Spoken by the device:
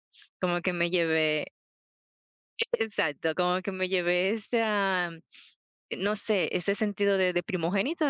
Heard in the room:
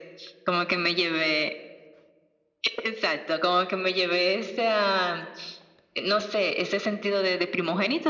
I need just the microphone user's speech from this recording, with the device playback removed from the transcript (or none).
none